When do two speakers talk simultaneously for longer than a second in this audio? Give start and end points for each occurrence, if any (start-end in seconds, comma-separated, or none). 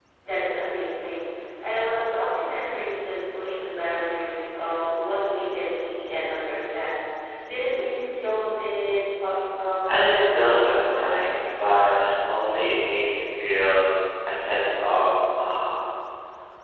9.9-11.1